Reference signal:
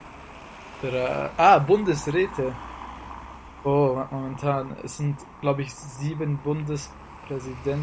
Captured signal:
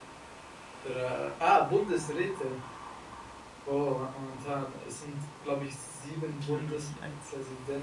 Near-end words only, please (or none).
Biologie eins,